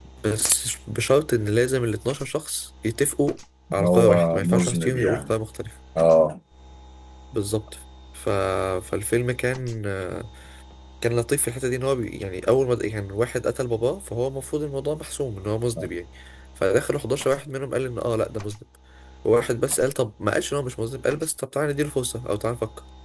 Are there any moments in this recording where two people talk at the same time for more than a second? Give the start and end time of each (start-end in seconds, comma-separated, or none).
3.8-5.3